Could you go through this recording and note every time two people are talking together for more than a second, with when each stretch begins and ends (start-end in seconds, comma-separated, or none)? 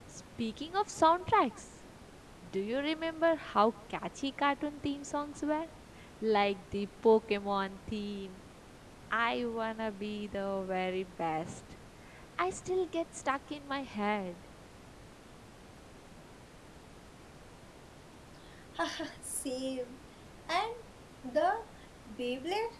none